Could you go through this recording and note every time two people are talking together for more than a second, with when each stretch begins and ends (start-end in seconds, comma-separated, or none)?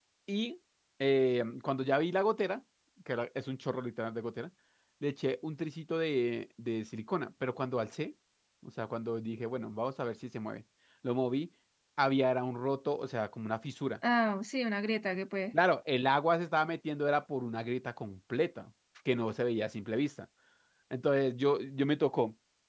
none